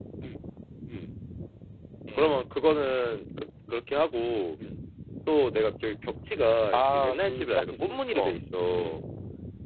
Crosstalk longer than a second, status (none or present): present